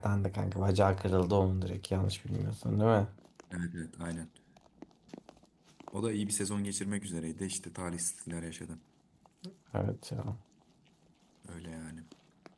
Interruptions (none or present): none